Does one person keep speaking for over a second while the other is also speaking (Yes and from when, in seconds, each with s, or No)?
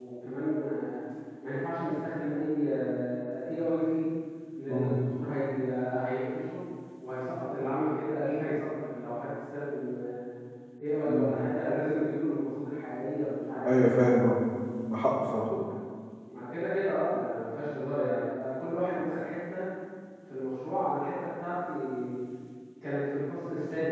No